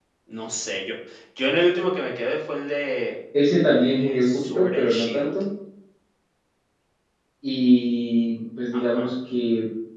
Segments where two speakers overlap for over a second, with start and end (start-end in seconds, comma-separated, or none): 3.5-5.3